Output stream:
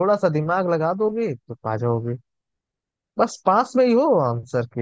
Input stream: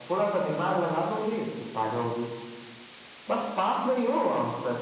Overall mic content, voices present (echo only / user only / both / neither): echo only